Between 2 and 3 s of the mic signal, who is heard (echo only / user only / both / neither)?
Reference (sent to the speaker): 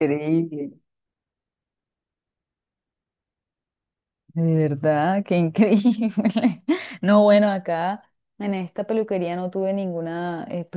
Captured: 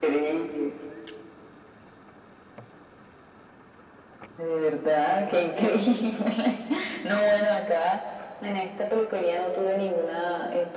neither